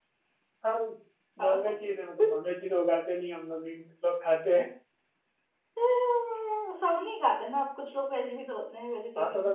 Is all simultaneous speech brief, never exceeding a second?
Yes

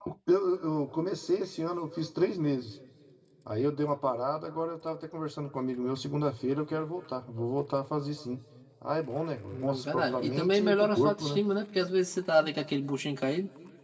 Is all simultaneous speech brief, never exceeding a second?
No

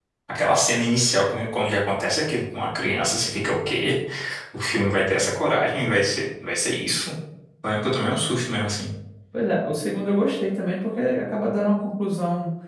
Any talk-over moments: No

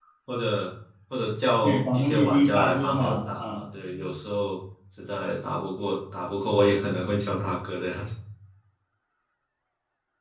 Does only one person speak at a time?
No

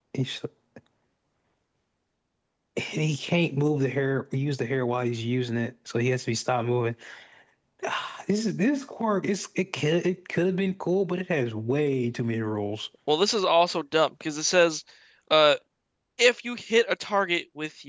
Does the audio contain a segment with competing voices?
No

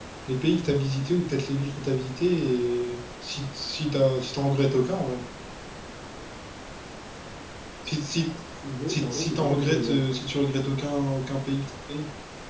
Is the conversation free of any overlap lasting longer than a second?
No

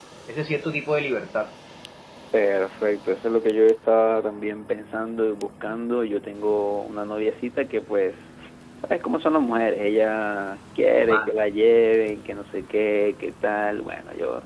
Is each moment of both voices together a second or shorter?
Yes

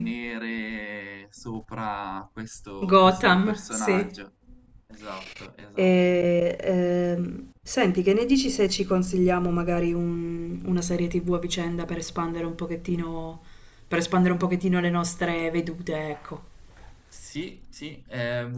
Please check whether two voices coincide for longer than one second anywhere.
Yes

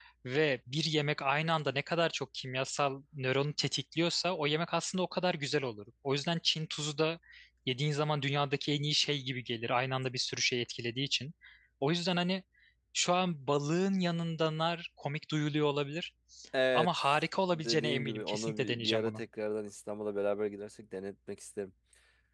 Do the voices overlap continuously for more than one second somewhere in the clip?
Yes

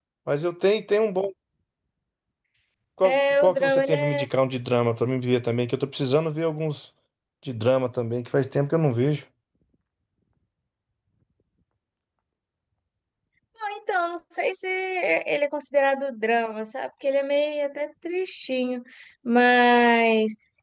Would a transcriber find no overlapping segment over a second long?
No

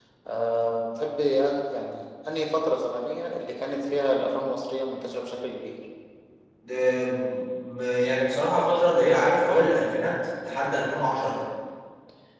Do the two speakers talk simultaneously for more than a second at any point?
No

